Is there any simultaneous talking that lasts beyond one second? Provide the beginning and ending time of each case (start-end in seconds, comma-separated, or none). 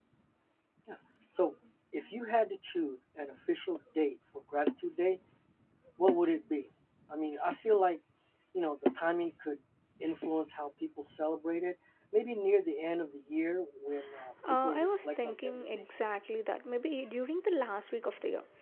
14.6-15.8